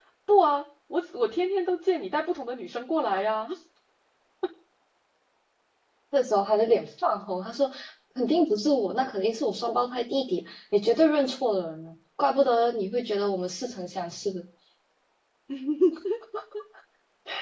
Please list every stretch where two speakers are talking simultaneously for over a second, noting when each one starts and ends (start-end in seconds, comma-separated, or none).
none